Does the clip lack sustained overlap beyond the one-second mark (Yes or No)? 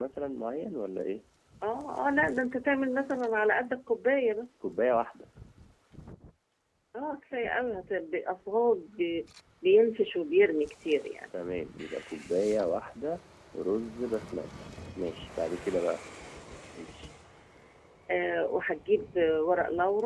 Yes